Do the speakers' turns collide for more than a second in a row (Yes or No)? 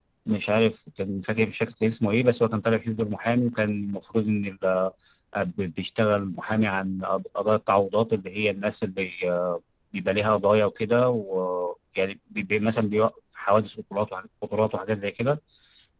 No